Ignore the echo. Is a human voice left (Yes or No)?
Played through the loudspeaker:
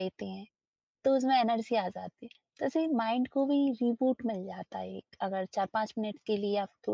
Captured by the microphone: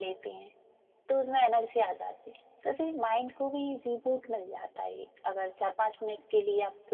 No